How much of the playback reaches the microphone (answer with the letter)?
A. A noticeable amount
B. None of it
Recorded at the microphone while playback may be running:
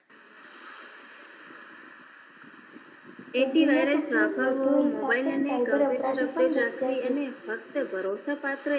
A